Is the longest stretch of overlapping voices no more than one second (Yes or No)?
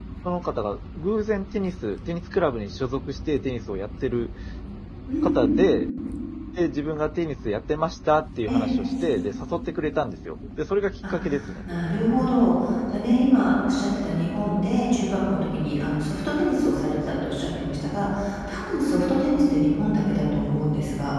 Yes